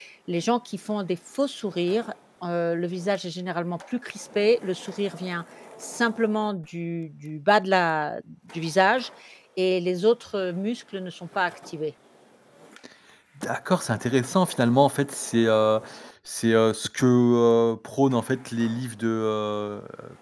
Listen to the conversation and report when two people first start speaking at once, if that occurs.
none

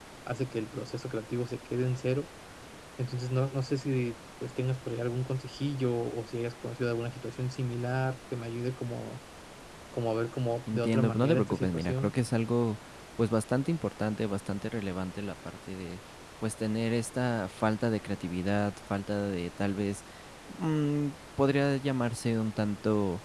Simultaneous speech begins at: 10.7 s

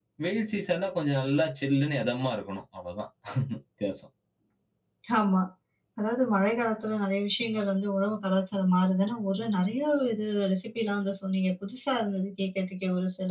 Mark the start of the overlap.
none

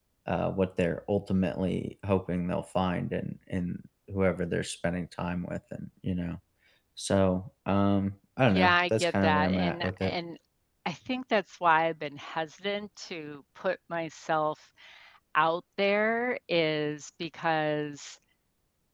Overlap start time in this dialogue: 8.5 s

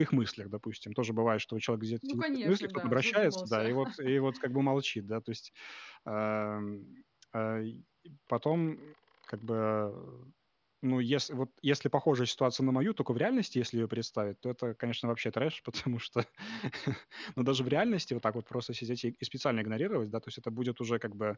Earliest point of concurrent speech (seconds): 2.0 s

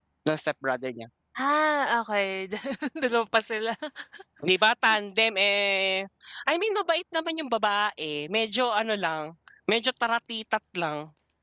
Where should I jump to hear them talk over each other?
none

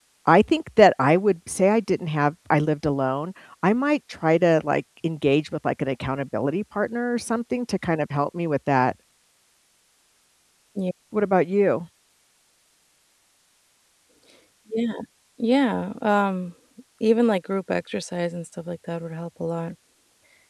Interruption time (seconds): none

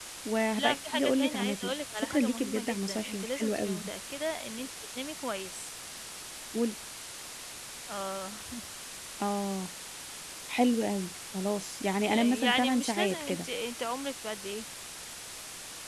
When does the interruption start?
0.6 s

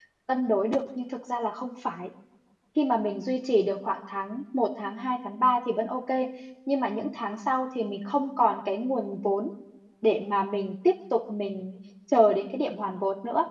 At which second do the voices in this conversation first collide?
none

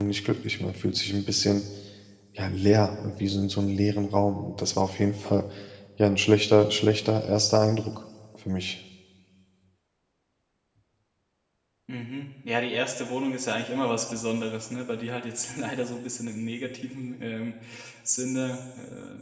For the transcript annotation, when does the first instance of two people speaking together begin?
none

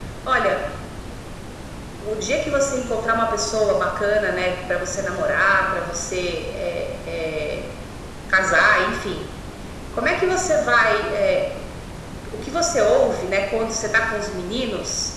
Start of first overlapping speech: none

